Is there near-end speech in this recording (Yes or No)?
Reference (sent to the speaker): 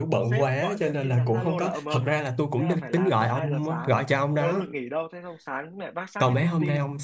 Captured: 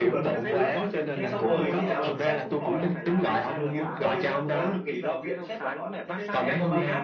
Yes